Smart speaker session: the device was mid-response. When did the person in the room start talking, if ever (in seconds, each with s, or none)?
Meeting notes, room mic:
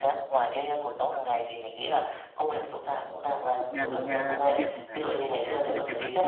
3.6 s